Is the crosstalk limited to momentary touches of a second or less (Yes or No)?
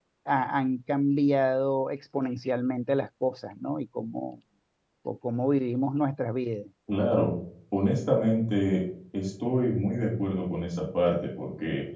Yes